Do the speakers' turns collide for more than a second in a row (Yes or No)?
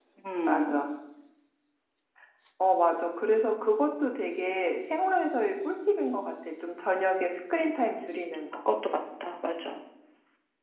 No